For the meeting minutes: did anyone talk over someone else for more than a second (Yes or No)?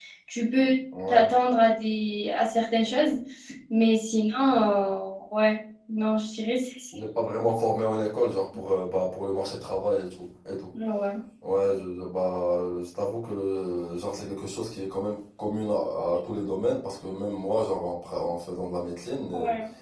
No